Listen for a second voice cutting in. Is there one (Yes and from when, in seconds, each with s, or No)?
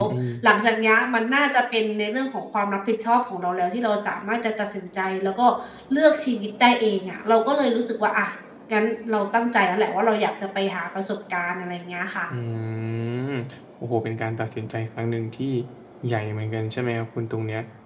No